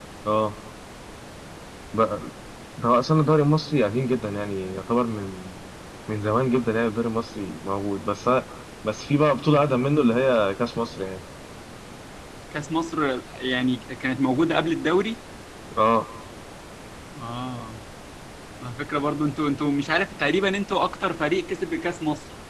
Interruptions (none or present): none